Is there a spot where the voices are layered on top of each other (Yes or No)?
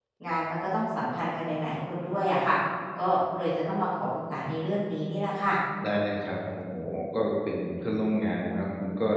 No